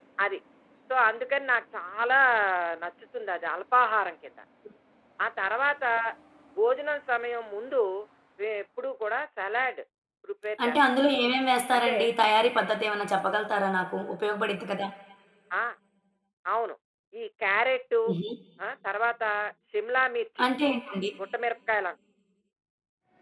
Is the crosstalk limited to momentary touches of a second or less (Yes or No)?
Yes